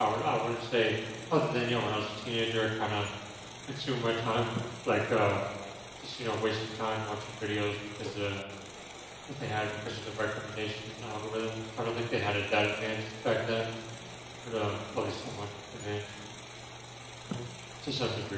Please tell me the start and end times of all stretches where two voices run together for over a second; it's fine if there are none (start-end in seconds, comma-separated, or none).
none